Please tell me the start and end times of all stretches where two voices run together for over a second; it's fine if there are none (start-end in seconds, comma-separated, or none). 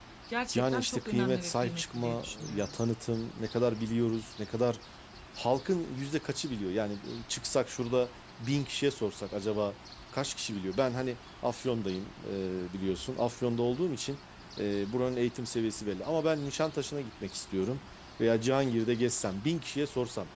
0.5-2.8